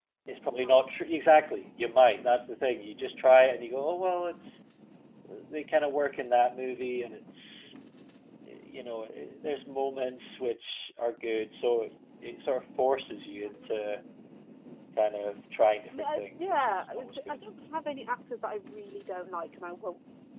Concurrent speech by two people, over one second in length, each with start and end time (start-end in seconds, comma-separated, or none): 16.0-17.5